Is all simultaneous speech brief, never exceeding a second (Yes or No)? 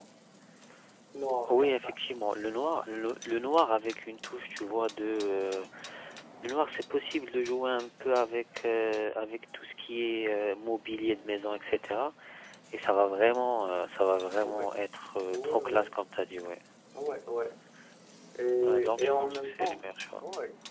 No